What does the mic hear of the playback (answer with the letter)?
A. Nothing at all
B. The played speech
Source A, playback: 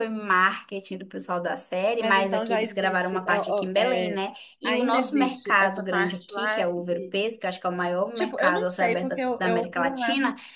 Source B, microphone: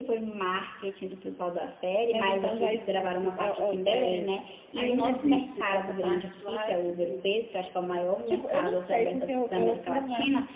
B